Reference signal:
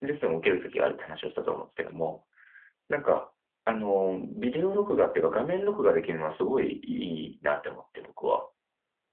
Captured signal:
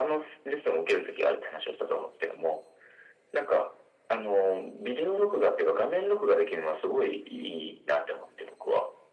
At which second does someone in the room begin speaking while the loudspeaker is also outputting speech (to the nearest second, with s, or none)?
none